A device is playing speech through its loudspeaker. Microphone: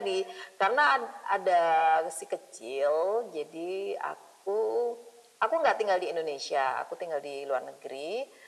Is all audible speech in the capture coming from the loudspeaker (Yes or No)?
Yes